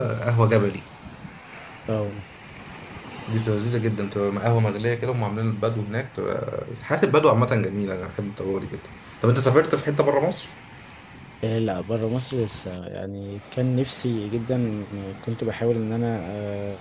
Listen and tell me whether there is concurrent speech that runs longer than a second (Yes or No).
No